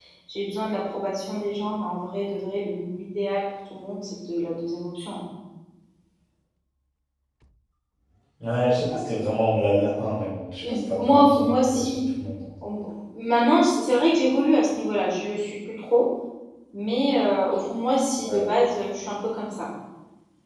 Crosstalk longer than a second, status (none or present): present